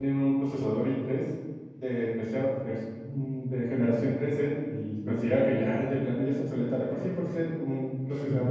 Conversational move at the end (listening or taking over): listening